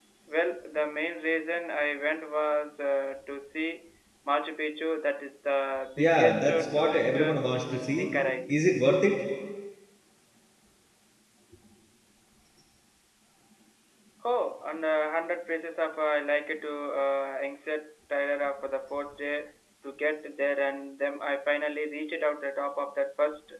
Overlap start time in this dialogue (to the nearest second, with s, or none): 6 s